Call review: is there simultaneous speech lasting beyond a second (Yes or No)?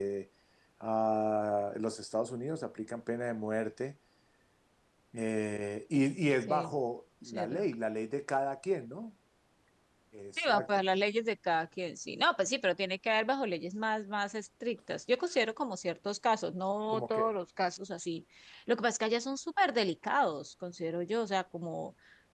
No